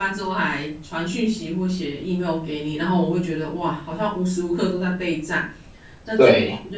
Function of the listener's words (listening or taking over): listening